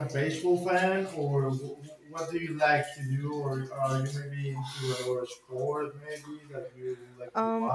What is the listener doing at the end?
taking over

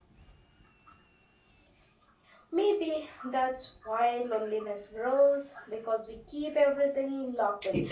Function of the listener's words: taking over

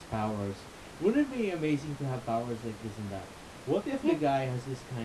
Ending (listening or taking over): listening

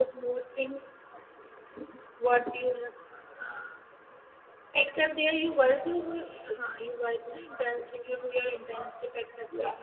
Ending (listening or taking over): taking over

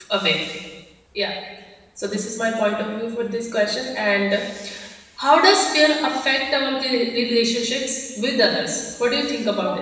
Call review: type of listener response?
taking over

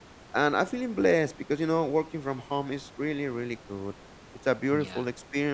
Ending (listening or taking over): listening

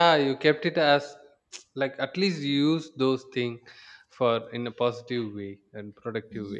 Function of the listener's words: taking over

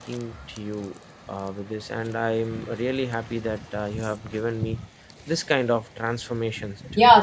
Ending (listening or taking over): taking over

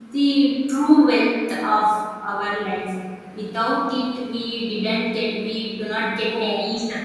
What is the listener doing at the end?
taking over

